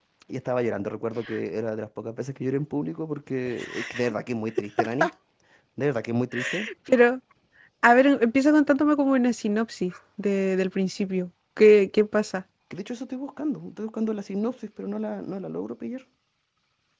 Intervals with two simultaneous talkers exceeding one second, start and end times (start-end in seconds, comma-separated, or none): none